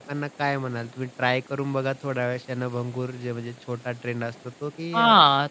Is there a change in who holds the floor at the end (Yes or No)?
Yes